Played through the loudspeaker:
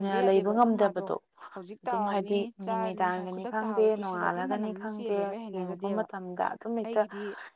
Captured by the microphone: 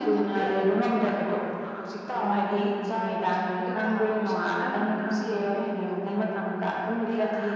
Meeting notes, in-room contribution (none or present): none